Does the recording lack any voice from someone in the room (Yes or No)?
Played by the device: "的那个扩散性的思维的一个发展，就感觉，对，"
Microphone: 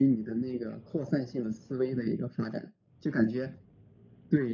Yes